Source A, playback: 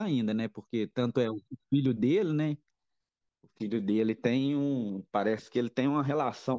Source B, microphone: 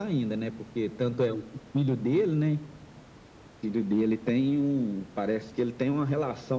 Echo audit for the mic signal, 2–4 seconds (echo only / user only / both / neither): echo only